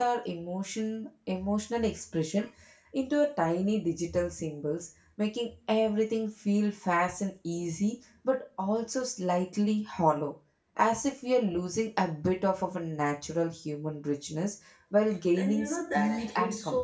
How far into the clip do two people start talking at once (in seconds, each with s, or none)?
15.4 s